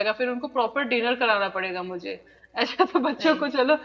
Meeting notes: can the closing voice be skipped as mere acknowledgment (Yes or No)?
Yes